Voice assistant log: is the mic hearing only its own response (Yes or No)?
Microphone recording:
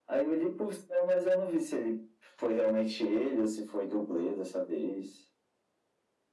Yes